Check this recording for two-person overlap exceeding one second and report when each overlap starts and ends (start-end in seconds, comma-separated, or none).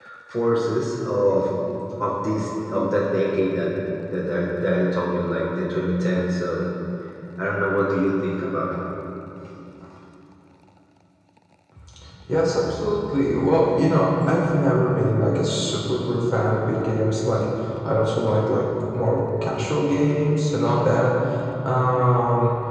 none